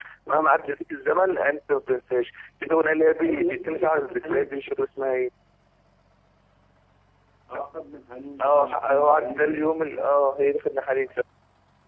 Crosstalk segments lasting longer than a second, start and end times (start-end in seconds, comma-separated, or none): 3.2-4.5, 8.4-9.7